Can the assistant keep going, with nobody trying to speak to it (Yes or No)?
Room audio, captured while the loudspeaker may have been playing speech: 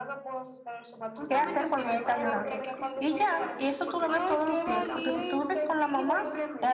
No